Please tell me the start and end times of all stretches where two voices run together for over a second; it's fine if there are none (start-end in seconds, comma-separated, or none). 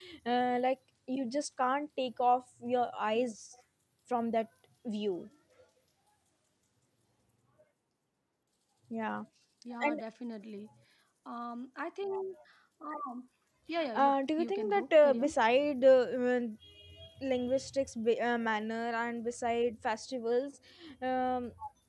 13.9-15.3